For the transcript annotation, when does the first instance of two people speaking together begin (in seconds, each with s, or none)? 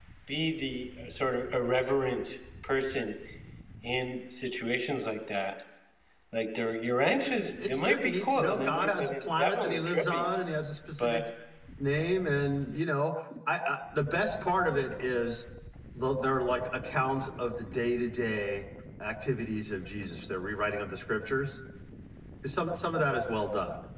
7.6 s